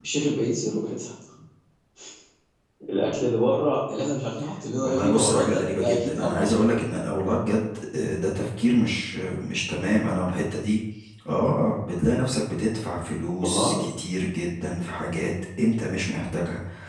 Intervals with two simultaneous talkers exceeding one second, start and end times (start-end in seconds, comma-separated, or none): 4.8-6.6